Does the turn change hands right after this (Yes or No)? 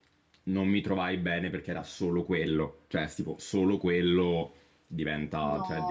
No